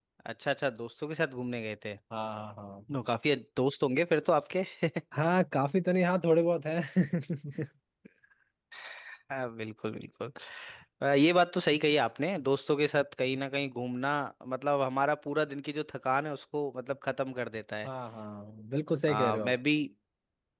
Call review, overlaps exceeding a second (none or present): none